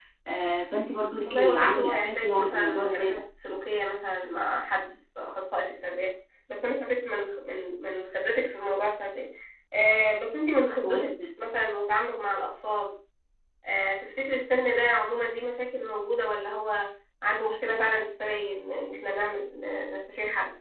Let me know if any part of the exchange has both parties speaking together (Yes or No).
Yes